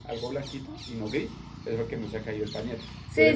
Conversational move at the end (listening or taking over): taking over